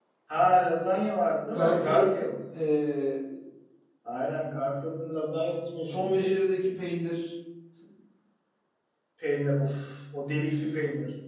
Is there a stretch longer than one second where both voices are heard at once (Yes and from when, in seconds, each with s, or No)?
No